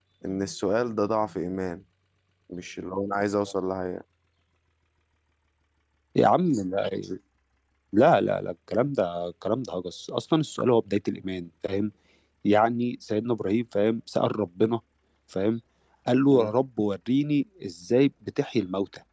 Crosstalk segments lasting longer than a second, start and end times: none

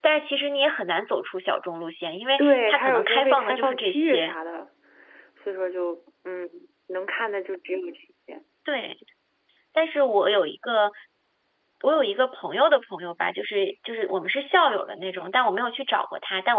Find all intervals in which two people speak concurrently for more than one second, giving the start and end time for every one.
2.4-4.4

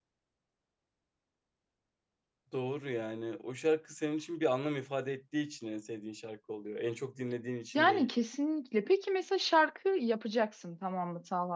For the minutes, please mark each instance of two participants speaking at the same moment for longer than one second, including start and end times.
none

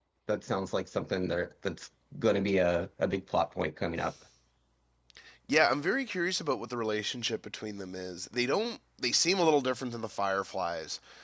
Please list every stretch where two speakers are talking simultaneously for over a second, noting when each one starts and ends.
none

